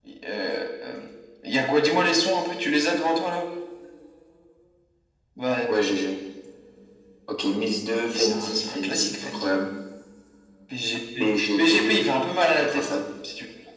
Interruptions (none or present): present